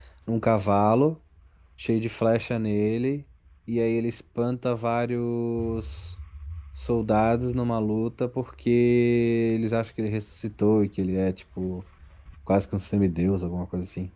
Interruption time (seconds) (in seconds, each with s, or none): none